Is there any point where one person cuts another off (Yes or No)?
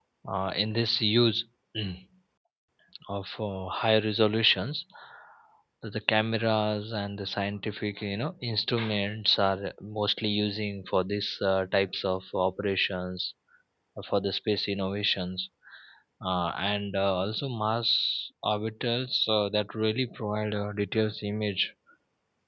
No